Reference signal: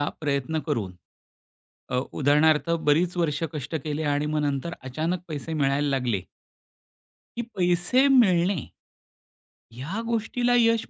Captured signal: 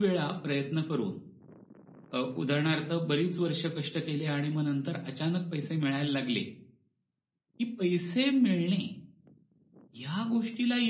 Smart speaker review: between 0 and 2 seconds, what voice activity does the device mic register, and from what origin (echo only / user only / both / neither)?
echo only